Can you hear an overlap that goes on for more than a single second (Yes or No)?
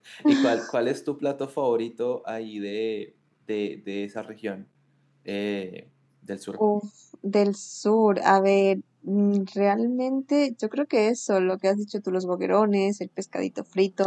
No